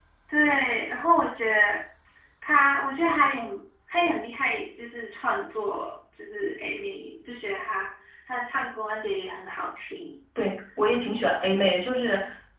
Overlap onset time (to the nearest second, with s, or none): none